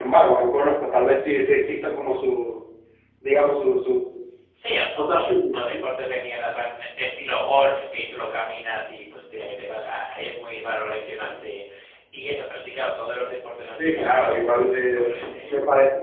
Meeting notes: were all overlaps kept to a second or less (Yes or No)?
No